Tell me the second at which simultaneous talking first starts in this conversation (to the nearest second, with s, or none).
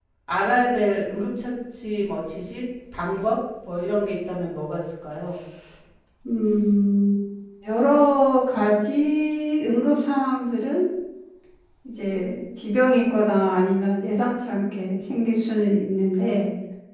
none